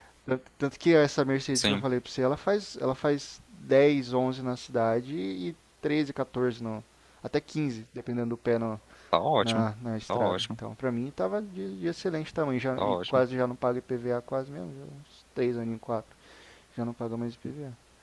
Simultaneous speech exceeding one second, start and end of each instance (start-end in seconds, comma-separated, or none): none